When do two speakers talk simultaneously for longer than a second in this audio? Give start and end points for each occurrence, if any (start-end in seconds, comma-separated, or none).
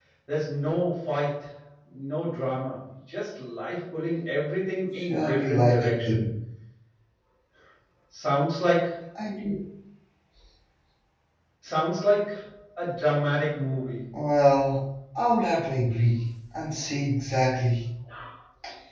4.9-6.2